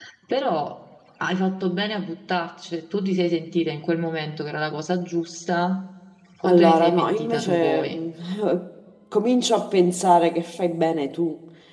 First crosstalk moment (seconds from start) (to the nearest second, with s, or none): 6 s